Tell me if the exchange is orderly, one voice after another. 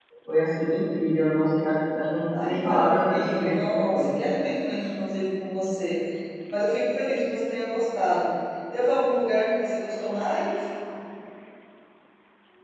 No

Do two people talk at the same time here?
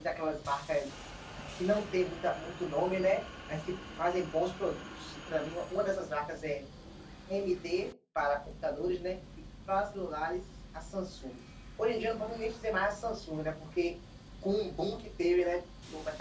No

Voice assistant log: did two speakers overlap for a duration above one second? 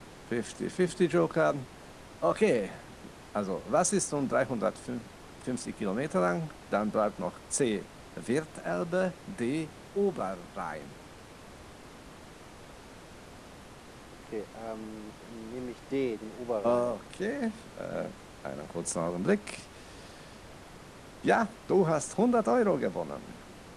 No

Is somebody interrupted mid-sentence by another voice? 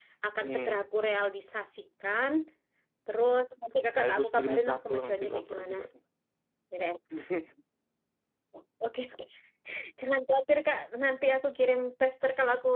Yes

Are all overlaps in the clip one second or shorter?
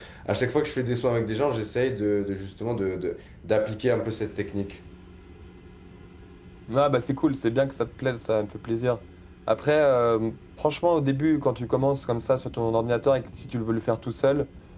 Yes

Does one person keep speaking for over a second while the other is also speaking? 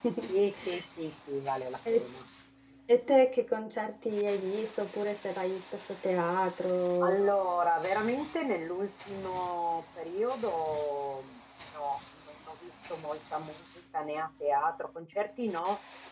No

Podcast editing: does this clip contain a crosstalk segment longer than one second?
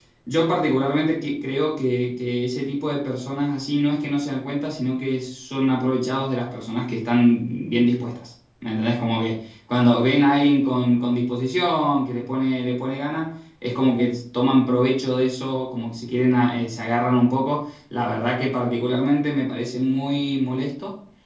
No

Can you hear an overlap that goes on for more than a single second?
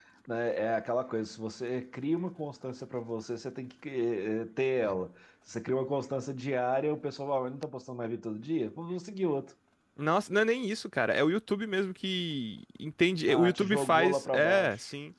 Yes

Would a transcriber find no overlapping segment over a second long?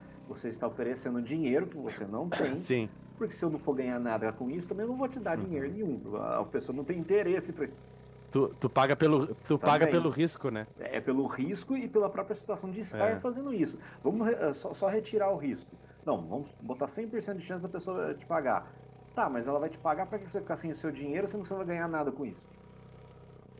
Yes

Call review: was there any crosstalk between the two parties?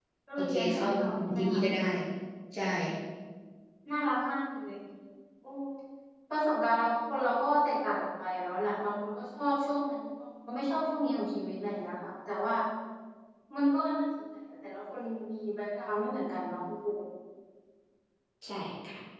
Yes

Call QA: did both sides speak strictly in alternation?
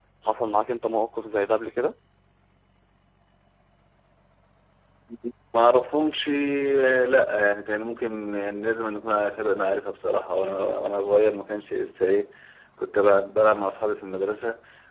Yes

